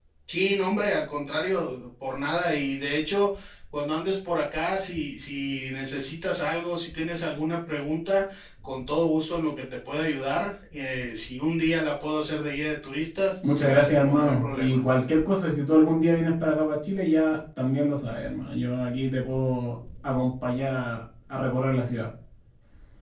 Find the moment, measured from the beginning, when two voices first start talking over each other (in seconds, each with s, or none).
13.4 s